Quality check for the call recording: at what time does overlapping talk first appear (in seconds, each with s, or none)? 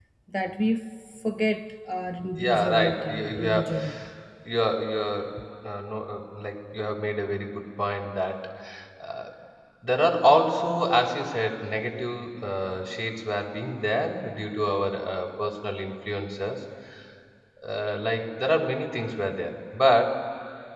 2.4 s